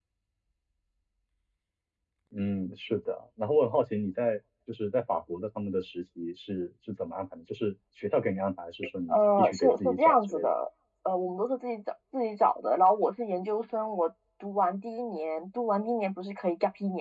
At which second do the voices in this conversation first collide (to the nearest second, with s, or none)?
9 s